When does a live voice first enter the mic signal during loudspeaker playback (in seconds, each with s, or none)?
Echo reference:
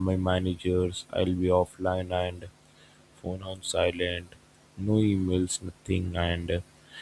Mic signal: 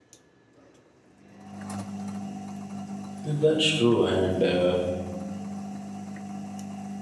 3.2 s